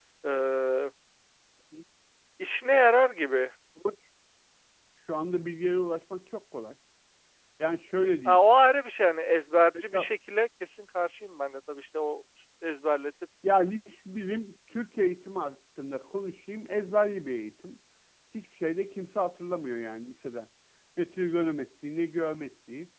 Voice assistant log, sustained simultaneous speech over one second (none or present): none